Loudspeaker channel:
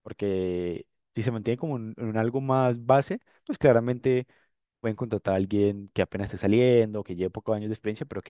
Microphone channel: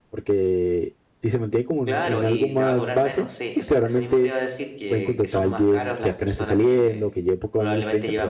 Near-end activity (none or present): present